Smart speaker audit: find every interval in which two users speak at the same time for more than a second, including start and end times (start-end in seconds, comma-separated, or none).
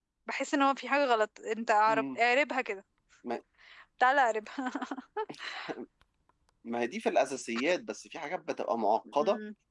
none